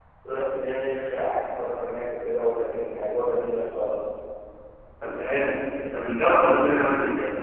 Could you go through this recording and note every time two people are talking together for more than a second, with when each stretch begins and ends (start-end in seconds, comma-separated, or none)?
none